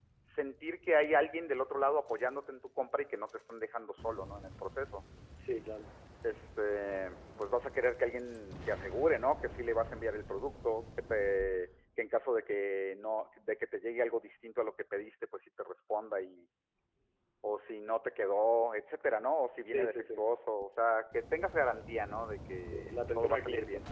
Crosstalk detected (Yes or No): Yes